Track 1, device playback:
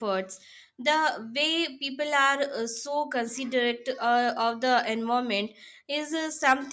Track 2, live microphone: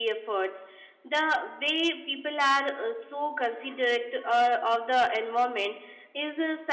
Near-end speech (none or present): none